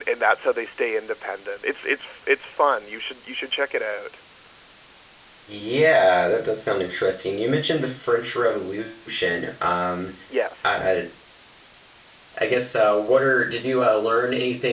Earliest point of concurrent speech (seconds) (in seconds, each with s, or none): none